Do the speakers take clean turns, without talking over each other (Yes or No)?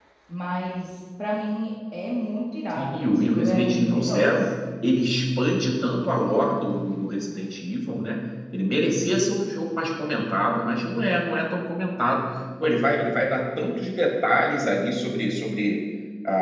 No